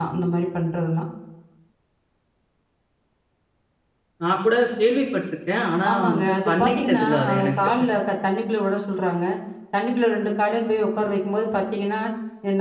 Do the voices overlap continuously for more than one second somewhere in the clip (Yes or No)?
Yes